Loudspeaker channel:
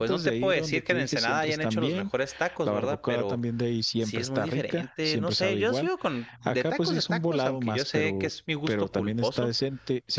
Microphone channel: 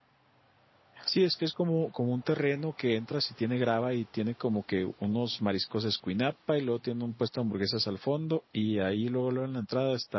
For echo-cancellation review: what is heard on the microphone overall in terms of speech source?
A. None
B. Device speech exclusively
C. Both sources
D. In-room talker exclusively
D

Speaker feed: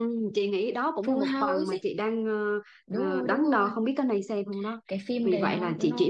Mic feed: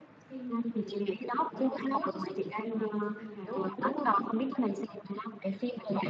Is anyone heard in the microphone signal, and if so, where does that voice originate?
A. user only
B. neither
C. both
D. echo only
C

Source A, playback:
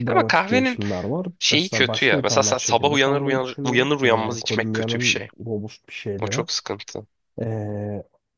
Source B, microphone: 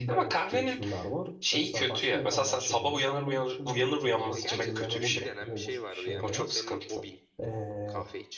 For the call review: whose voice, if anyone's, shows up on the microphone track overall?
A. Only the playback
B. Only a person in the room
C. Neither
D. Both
D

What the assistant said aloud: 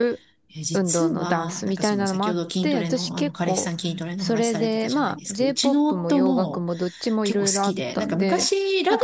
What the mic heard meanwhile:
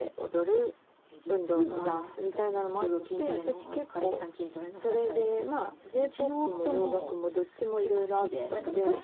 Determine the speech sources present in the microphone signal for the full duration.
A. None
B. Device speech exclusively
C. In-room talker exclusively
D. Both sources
B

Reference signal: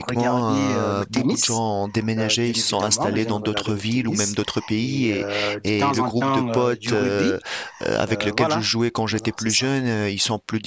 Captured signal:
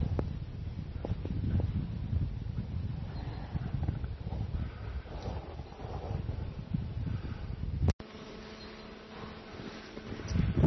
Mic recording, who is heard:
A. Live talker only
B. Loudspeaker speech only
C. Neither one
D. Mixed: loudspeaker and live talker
C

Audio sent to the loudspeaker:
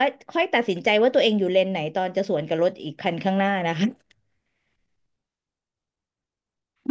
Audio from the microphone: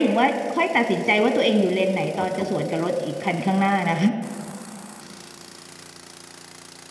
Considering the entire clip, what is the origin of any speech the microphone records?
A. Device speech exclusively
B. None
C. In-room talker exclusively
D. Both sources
D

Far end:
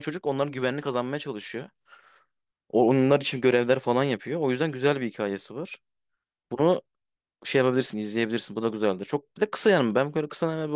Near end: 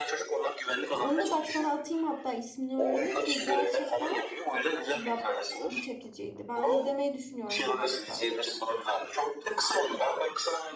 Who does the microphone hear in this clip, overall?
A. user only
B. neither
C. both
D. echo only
C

